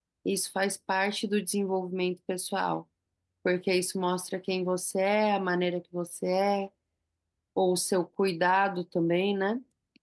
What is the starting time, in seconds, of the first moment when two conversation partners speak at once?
none

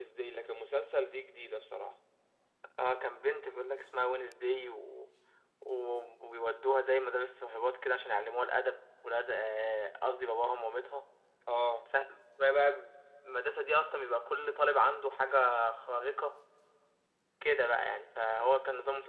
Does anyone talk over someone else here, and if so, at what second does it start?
none

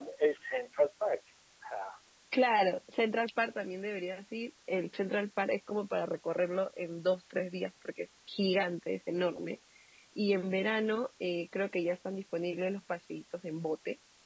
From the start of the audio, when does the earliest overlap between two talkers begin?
none

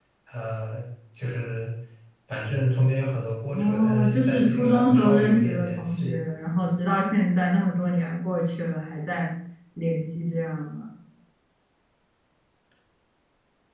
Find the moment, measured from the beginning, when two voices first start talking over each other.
3.5 s

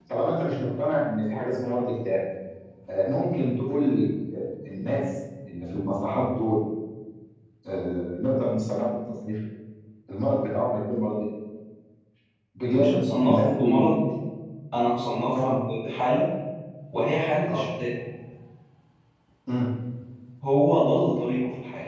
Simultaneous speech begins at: 12.7 s

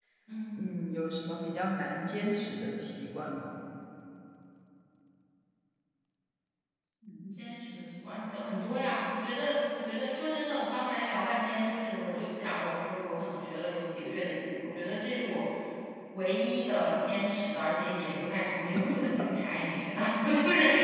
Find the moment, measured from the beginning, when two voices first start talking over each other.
none

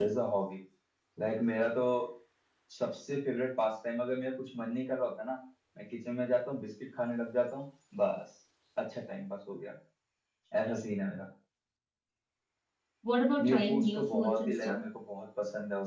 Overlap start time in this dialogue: 13.4 s

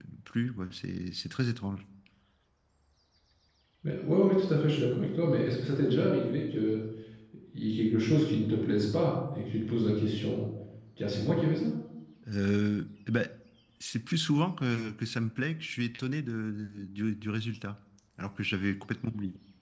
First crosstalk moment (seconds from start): none

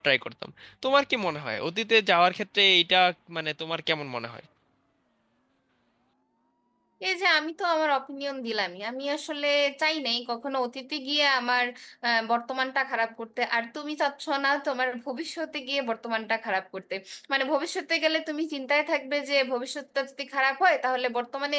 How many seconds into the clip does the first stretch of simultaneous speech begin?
none

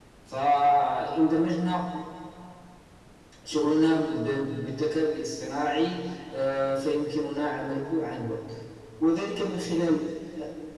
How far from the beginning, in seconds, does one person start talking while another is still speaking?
none

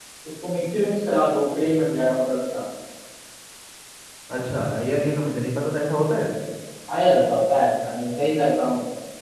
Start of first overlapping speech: none

